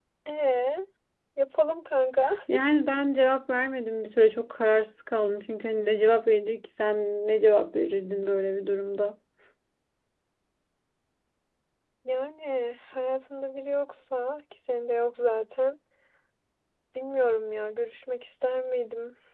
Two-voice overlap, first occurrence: none

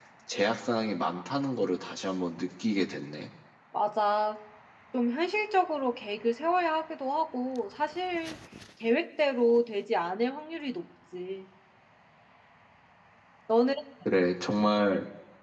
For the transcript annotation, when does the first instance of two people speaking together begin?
none

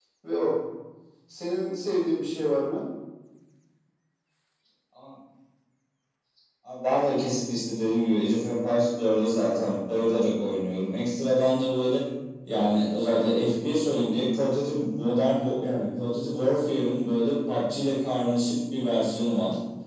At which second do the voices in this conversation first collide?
none

